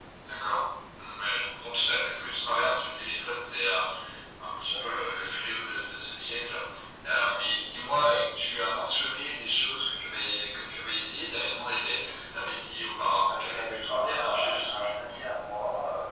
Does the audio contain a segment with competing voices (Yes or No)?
Yes